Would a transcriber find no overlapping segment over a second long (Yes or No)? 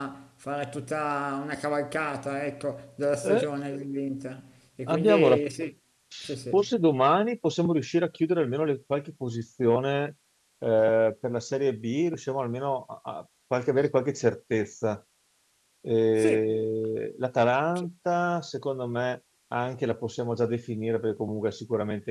Yes